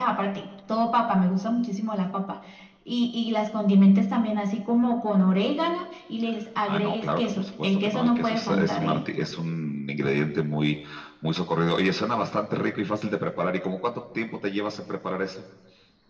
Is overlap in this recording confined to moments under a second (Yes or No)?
No